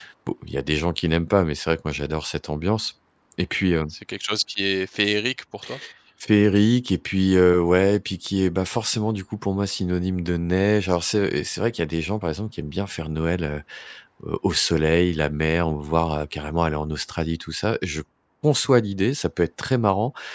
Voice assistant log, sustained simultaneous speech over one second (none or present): none